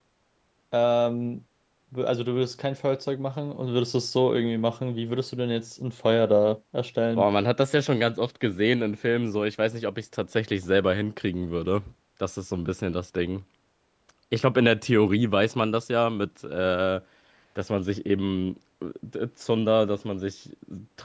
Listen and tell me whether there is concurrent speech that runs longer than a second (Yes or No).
No